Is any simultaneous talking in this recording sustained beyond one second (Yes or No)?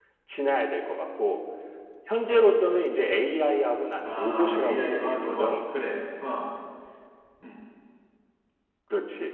Yes